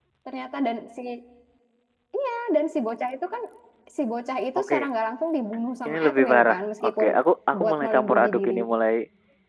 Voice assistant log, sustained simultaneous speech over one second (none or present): present